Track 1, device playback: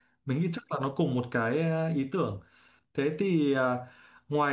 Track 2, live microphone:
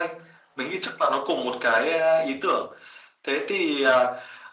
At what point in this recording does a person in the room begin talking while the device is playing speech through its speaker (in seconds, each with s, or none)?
none